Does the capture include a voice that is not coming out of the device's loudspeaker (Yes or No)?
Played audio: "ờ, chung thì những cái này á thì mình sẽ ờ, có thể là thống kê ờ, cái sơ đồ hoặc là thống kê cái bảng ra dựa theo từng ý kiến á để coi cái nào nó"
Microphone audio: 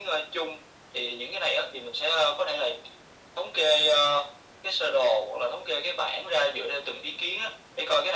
No